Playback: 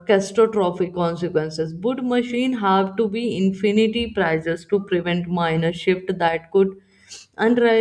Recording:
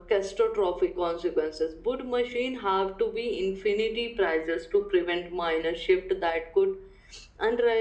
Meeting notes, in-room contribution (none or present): none